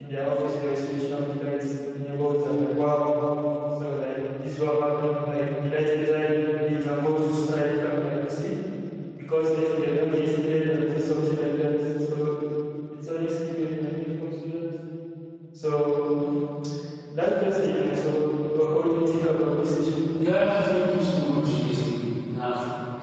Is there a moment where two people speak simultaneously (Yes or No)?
No